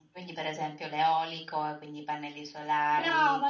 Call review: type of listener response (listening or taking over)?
taking over